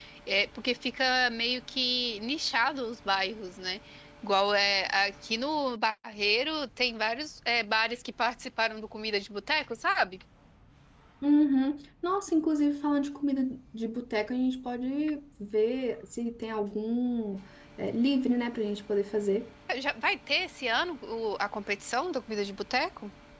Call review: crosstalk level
none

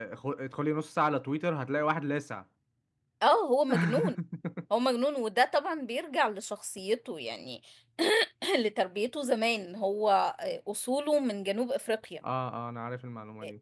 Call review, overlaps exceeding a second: none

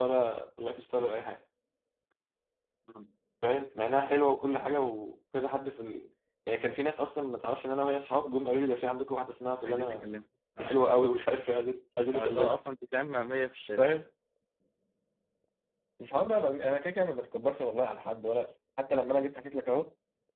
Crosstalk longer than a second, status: none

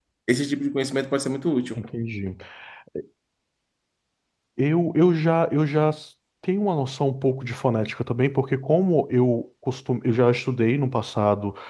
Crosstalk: none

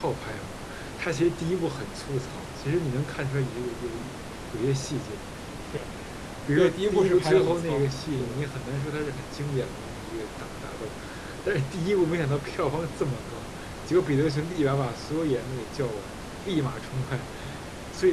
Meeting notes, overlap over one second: present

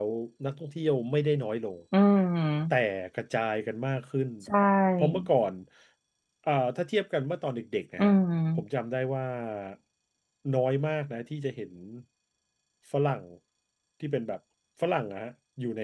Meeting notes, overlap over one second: none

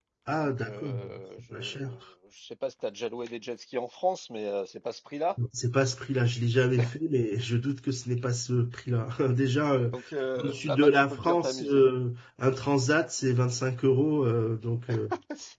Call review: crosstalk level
present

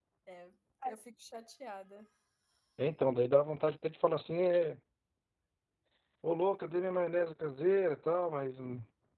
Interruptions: none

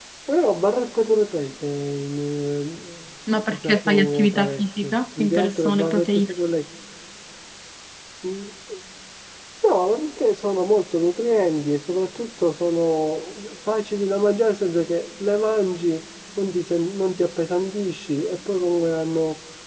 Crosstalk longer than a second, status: present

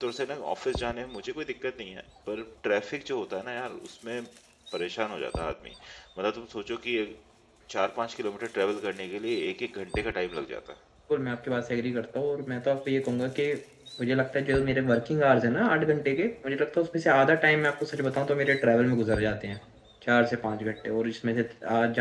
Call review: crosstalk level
none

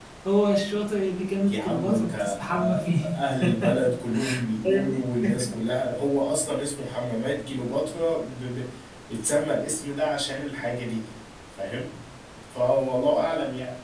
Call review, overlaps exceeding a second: present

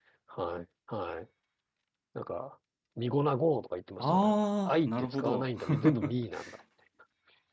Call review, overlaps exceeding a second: present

